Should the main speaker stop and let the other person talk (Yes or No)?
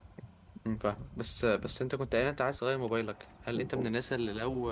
No